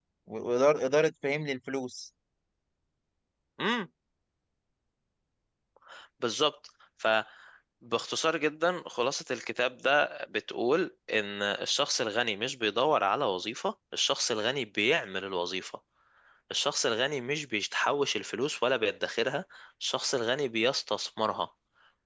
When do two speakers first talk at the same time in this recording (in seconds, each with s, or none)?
none